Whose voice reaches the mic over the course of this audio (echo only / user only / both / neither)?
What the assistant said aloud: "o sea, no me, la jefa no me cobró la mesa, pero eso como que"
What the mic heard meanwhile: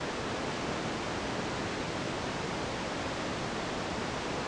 neither